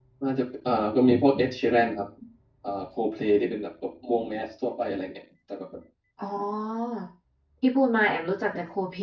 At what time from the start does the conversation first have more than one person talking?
none

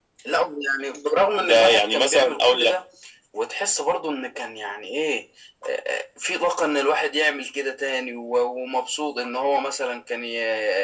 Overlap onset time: 1.4 s

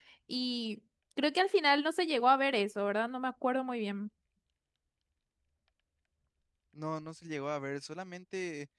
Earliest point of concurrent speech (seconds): none

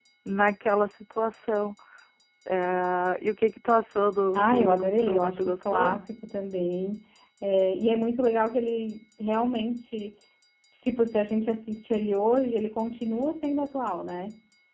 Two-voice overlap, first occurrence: 4.3 s

